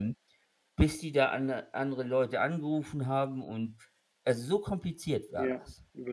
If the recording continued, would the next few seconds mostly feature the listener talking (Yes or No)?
Yes